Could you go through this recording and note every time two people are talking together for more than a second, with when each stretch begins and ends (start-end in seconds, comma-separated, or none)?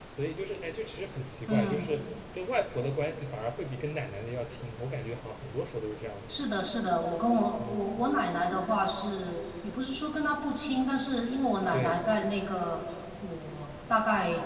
none